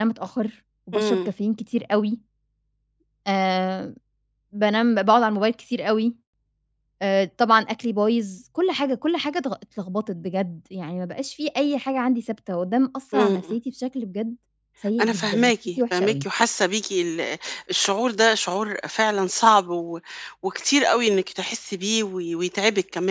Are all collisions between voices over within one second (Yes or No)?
No